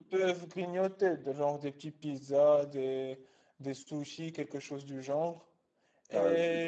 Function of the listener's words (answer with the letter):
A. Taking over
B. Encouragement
A